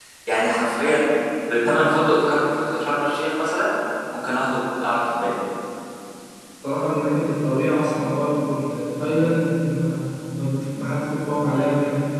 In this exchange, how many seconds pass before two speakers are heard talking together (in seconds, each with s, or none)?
none